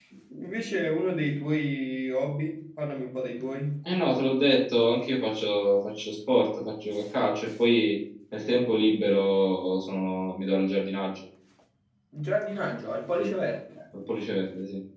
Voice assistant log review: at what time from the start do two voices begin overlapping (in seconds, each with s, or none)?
none